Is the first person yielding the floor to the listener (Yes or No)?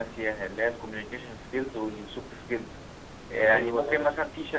No